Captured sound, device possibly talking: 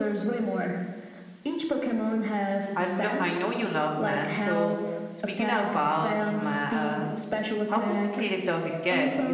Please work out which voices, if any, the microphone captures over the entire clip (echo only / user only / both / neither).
both